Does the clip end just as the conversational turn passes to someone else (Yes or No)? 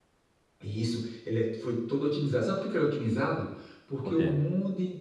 No